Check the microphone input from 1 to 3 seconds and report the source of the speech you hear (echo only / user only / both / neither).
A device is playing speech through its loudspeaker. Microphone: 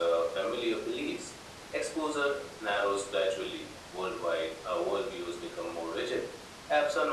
echo only